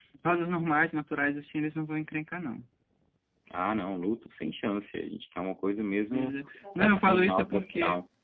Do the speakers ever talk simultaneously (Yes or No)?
Yes